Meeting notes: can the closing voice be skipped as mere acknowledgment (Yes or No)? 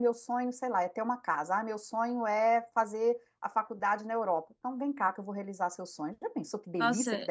No